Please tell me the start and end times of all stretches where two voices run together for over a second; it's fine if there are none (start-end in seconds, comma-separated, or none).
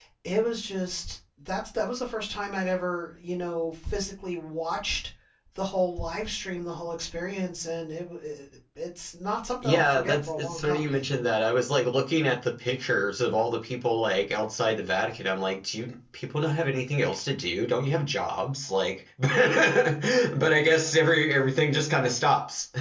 9.6-11.1